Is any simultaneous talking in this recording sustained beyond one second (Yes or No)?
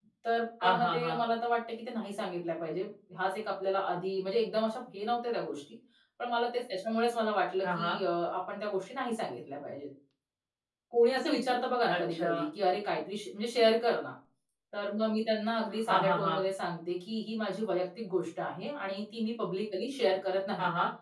No